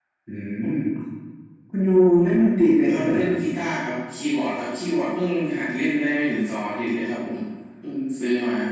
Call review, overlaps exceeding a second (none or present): none